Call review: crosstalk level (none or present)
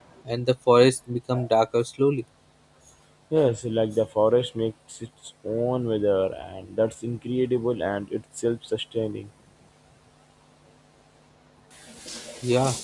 none